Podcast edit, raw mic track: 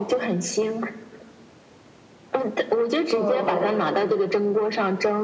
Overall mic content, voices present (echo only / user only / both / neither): both